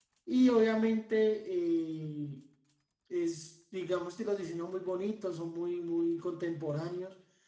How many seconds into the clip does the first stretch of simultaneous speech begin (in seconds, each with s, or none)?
none